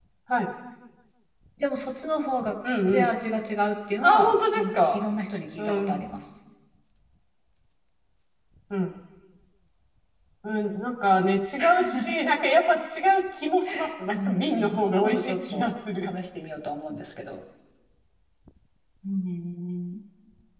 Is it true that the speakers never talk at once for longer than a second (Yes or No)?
No